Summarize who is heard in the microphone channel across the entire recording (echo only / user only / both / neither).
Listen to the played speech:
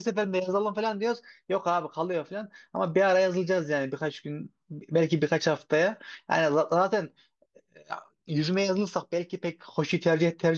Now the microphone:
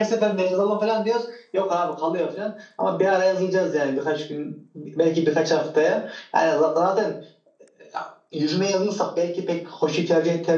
echo only